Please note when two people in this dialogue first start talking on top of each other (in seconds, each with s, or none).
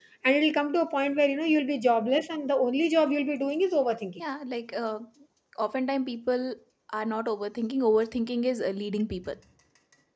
none